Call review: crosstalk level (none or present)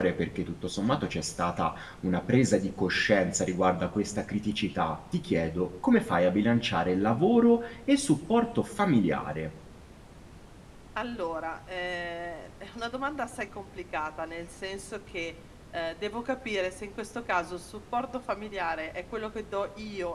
none